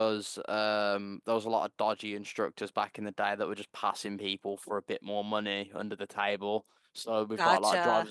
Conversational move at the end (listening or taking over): listening